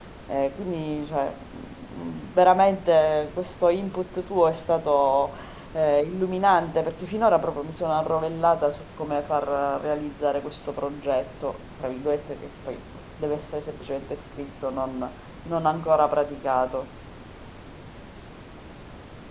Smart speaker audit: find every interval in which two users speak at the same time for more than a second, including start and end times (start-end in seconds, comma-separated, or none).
none